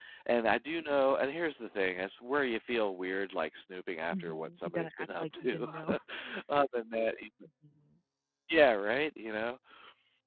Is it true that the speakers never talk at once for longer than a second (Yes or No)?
No